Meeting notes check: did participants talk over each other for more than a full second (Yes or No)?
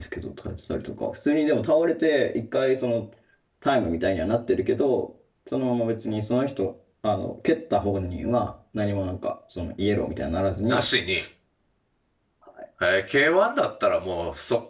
No